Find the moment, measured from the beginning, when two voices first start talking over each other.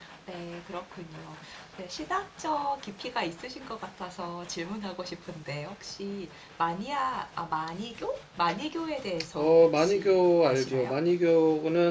9.3 s

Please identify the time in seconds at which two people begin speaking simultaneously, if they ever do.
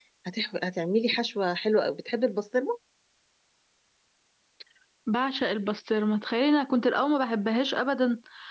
none

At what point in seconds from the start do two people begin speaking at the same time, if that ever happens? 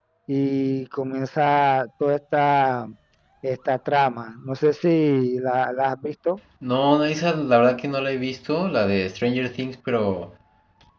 none

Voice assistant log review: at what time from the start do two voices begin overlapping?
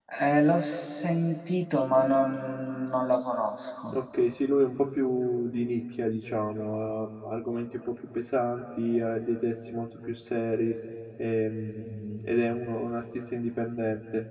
none

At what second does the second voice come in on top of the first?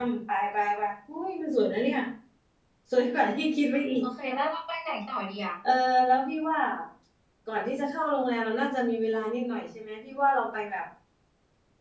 none

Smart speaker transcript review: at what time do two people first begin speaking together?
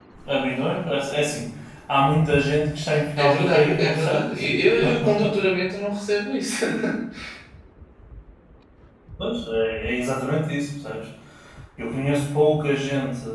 3.2 s

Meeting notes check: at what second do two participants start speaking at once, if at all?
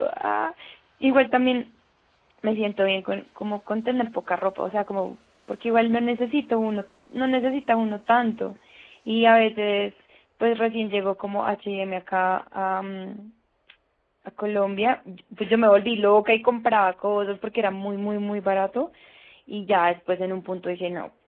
none

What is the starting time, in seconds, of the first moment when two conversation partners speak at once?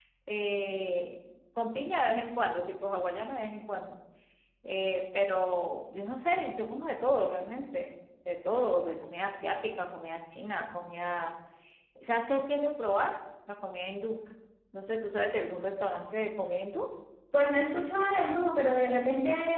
none

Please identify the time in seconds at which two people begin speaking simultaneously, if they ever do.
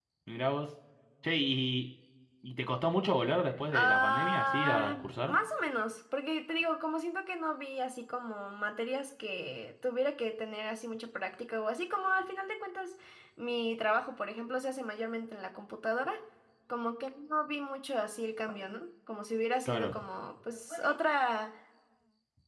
3.7 s

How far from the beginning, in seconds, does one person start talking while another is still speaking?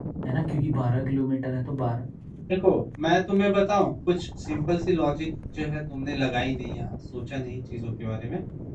none

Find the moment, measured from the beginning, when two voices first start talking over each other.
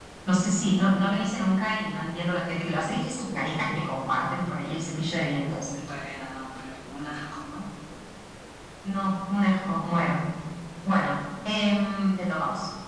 none

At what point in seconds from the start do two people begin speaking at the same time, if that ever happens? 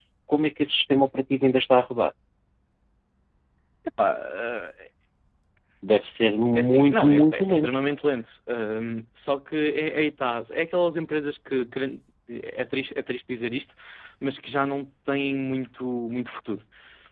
6.5 s

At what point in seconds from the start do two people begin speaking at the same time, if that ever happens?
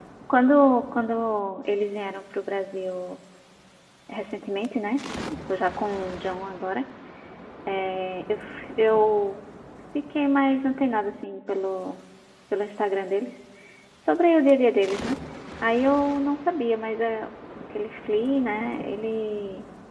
none

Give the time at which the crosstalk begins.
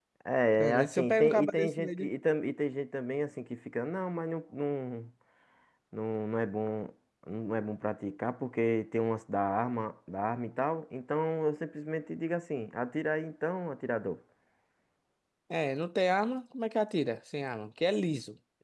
0.6 s

